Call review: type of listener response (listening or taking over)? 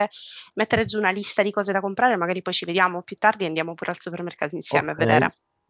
taking over